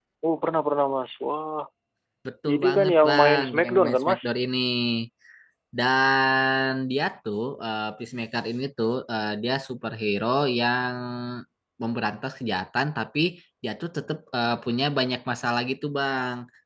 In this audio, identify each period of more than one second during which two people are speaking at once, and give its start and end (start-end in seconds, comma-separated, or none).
2.5-4.2